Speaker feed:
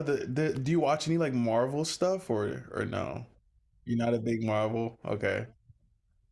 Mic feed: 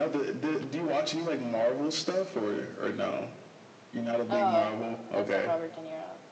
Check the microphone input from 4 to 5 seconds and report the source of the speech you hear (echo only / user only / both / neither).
both